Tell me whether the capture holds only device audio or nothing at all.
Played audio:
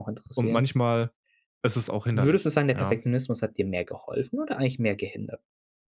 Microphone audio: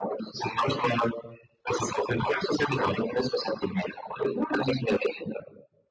Yes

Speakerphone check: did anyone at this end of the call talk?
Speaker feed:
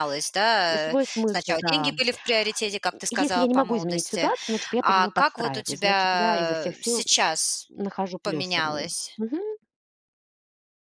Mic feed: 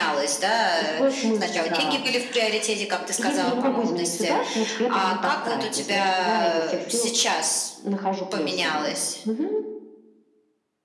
Yes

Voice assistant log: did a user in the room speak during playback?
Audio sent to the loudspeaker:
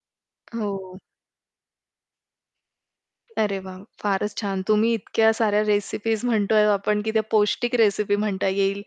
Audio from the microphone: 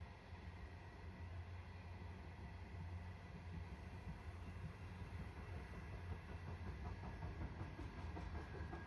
No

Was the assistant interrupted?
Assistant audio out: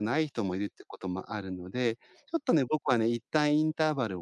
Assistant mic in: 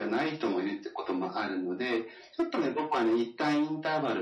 No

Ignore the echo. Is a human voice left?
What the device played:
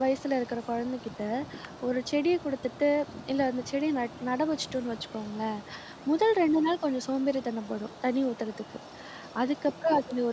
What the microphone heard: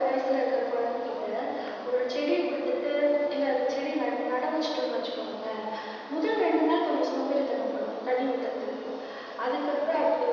Yes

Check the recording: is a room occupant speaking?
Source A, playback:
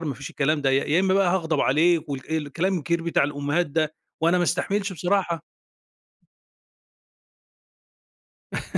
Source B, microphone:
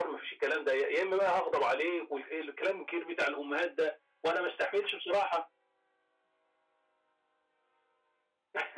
No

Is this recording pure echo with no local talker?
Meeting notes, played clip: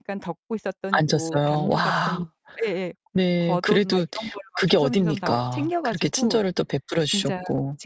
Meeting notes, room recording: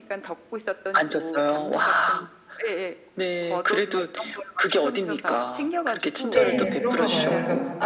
No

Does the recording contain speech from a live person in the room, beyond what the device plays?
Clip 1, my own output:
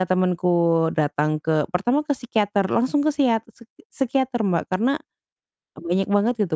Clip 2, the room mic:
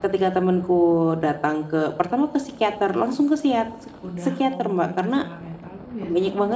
Yes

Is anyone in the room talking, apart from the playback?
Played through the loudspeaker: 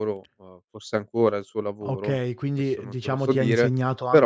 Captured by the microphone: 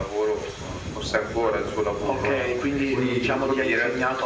Yes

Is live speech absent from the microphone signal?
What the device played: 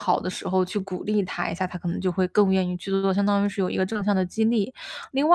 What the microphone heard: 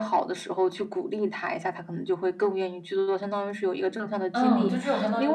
No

